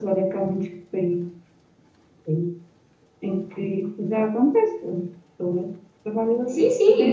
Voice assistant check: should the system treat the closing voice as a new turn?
Yes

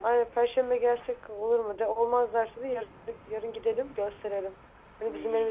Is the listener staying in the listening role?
Yes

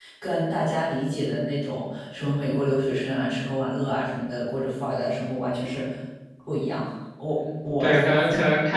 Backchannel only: No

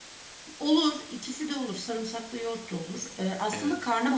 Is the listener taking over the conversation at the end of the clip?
No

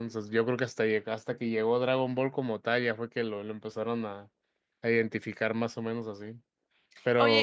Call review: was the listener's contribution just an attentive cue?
No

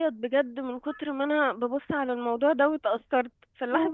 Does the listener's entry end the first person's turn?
No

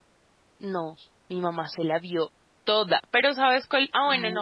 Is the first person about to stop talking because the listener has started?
No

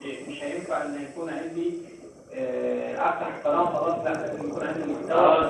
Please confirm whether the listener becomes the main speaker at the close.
Yes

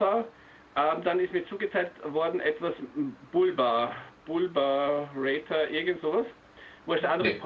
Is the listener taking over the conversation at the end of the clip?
No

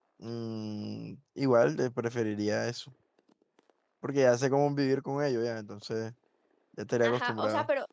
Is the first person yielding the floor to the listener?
Yes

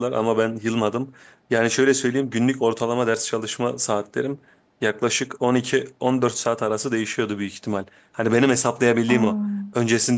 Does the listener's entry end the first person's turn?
No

